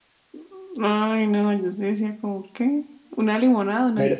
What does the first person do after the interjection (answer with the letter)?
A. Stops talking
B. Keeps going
A